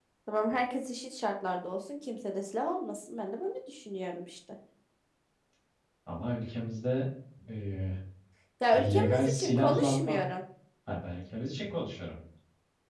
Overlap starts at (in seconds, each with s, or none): 8.7 s